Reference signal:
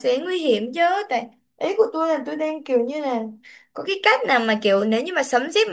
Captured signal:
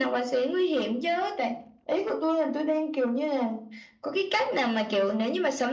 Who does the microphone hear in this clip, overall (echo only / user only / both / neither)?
echo only